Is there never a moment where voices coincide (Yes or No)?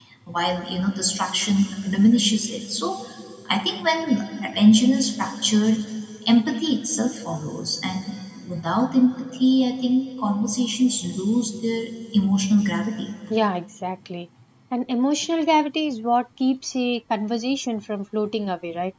Yes